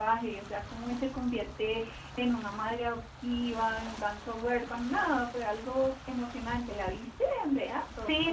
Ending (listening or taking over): taking over